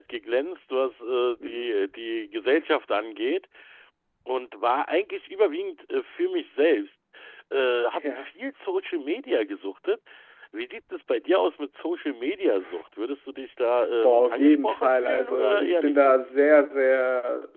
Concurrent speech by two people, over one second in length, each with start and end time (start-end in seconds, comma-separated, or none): 14.0-16.1